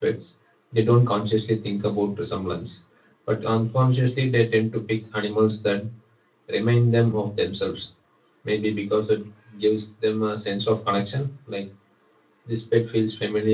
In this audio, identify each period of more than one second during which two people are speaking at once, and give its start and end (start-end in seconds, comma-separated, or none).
none